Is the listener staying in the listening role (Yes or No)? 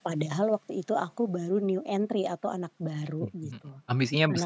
No